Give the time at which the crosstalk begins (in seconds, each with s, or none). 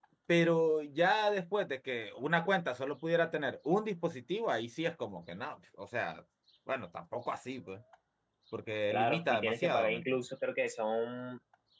8.9 s